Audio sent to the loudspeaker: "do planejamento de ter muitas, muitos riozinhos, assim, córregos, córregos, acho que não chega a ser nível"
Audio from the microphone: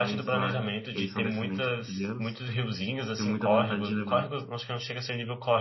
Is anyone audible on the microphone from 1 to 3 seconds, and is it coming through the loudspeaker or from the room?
both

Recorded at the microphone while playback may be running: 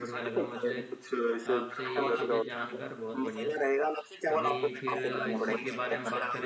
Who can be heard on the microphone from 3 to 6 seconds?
both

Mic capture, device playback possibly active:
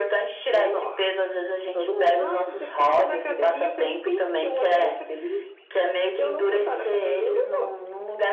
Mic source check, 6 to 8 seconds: echo only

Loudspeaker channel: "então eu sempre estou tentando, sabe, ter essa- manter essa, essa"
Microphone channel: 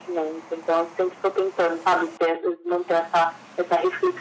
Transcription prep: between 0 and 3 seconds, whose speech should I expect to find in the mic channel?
echo only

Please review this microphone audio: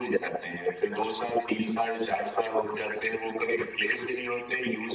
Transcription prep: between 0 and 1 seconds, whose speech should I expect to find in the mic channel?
echo only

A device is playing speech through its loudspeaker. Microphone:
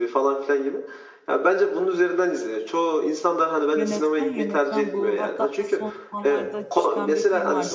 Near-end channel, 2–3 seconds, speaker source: echo only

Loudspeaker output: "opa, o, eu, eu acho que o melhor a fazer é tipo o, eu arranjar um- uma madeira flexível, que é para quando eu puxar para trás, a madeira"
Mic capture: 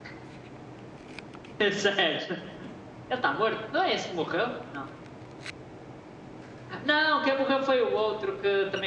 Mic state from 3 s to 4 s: user only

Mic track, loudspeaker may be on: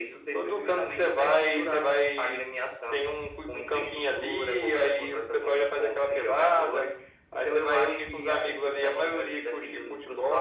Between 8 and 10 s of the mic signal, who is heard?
echo only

